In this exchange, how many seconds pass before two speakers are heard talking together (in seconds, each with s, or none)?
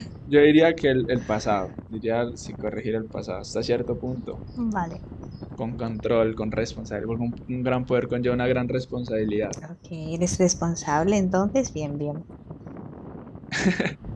none